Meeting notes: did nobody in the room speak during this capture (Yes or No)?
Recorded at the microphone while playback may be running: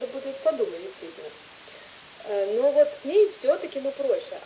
Yes